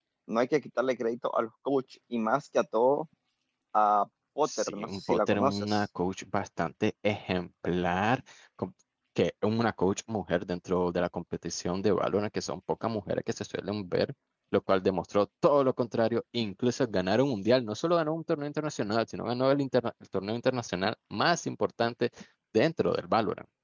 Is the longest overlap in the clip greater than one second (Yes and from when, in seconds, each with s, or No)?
Yes, from 4.4 s